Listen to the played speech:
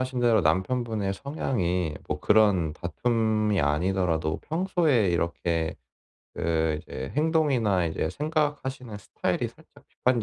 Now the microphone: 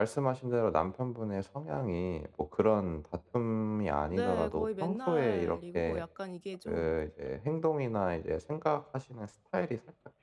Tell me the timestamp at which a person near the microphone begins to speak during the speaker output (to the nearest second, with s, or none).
4 s